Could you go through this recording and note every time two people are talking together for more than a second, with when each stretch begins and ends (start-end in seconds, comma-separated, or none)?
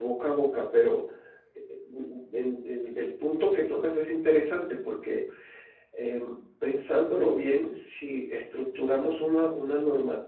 none